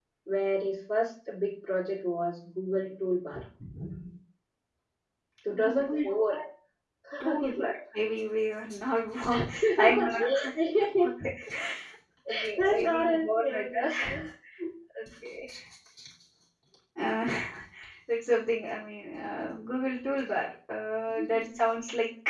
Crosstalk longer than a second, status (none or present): present